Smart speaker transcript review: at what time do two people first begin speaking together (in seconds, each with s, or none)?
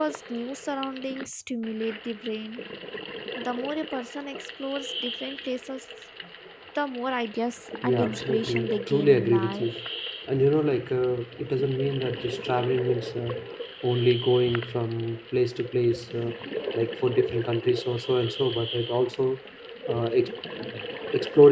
7.8 s